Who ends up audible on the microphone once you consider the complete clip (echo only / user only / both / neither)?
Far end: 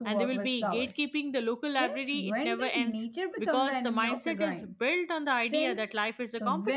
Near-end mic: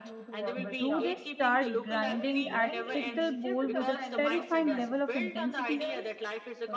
both